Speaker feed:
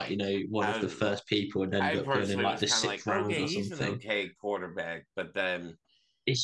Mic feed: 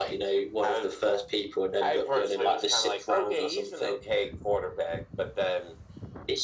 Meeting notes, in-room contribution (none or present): none